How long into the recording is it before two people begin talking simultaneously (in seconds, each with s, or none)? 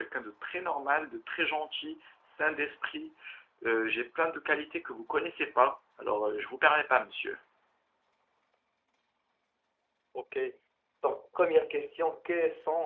none